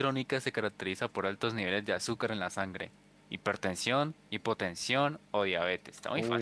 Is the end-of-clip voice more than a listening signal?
Yes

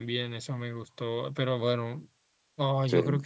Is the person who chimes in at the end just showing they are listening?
Yes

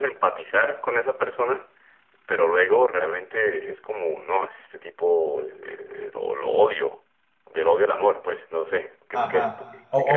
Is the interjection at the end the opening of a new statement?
Yes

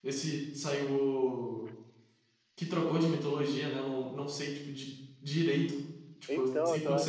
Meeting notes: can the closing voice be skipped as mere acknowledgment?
Yes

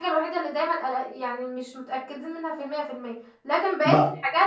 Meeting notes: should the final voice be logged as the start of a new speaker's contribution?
No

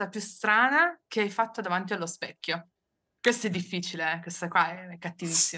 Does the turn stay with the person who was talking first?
No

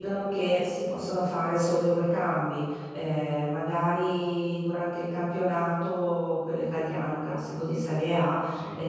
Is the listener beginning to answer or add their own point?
No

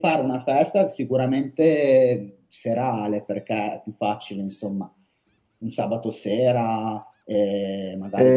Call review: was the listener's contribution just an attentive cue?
No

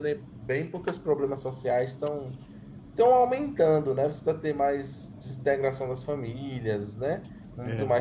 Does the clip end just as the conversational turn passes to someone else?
No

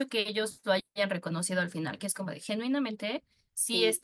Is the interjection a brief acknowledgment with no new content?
Yes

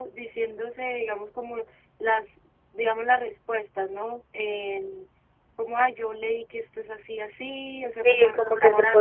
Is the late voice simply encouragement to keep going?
No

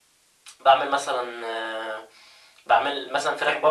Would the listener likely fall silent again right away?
Yes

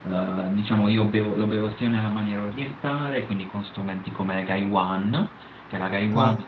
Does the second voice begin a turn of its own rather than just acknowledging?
No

